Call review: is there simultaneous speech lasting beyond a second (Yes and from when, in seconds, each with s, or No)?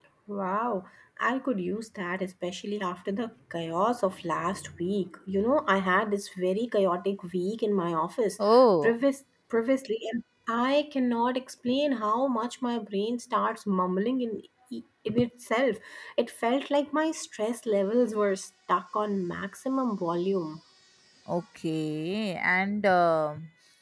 No